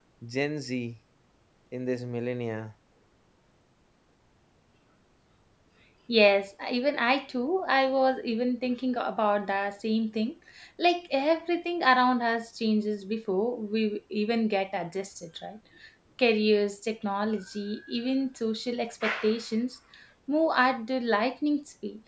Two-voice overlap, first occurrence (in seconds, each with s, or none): none